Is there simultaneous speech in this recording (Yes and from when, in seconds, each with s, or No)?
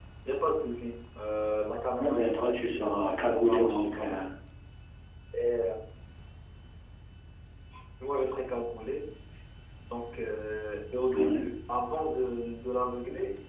Yes, from 2.0 s